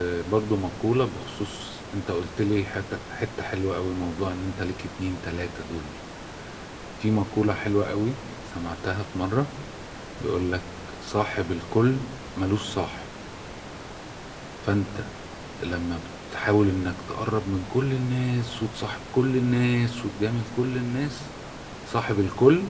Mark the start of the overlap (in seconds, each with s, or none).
none